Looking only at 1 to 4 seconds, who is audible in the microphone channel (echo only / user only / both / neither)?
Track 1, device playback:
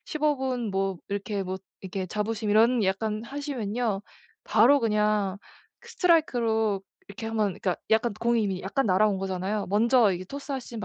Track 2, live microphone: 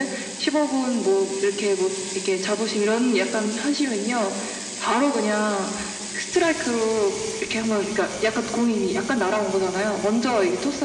echo only